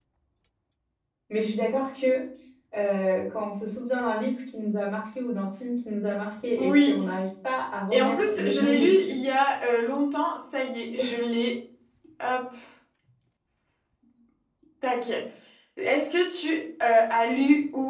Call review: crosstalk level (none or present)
present